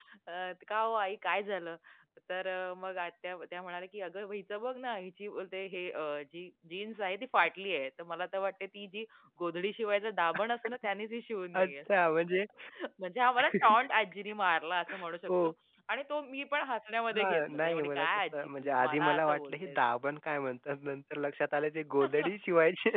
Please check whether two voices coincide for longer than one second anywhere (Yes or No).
Yes